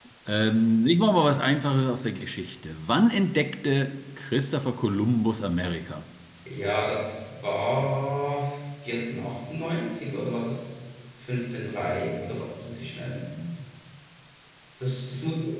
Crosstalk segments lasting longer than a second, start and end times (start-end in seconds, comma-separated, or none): none